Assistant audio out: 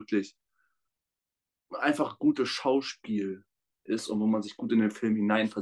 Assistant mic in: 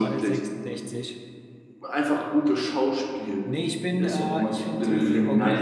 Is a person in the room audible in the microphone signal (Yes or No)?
Yes